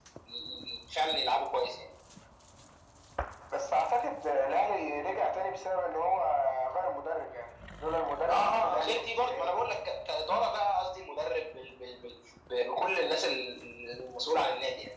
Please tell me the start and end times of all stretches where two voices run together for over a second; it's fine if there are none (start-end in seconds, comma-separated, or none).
8.3-9.5